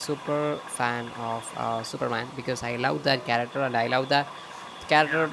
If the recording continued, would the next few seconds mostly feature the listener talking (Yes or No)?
No